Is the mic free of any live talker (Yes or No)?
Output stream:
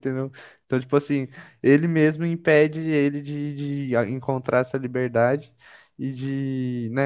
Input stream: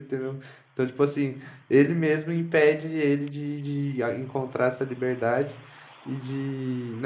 Yes